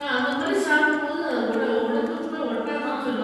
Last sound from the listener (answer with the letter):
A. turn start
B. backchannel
A